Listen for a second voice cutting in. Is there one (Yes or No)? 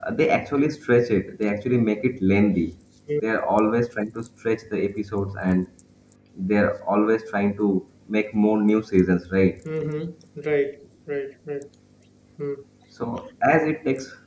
No